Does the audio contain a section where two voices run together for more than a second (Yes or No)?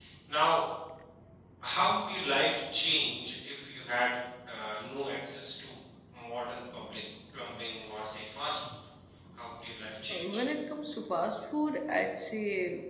No